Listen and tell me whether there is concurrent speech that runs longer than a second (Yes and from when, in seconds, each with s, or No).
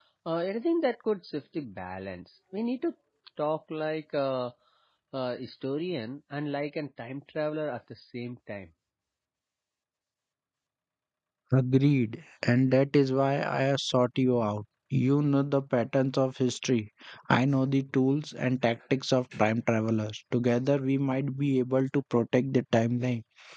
No